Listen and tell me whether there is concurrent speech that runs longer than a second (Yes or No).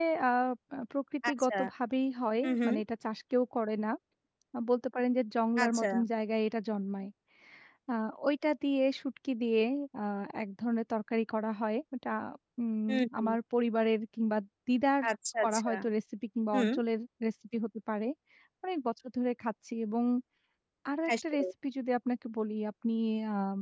No